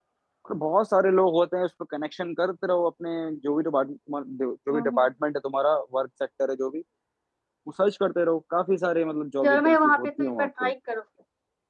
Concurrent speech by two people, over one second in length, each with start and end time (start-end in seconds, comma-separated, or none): 9.4-10.7